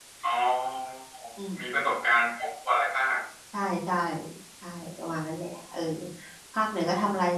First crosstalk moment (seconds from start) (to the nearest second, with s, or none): none